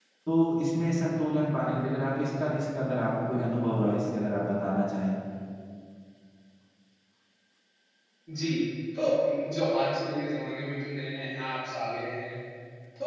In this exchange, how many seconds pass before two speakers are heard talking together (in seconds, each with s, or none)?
none